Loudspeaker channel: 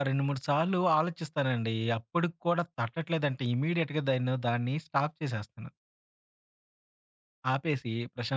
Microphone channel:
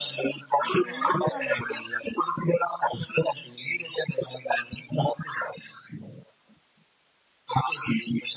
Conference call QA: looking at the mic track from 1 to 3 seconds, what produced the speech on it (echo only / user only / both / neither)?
both